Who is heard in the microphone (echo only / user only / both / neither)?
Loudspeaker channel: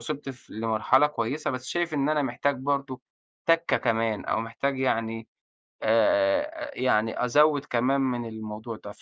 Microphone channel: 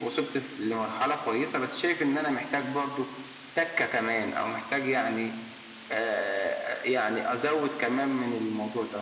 echo only